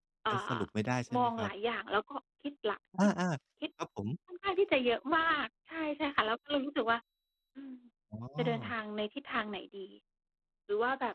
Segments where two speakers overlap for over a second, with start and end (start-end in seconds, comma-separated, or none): none